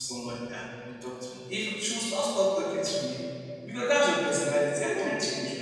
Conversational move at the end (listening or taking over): listening